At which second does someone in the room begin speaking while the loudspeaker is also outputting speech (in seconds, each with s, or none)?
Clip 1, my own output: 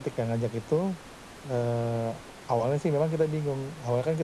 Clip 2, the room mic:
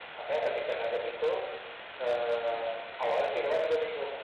none